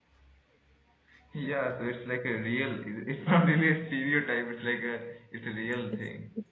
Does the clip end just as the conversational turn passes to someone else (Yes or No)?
Yes